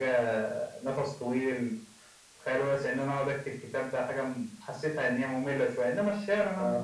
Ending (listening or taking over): taking over